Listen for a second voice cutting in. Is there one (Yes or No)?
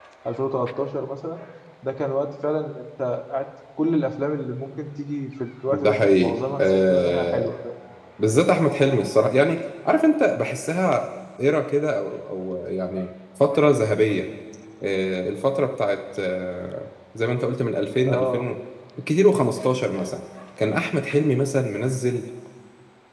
Yes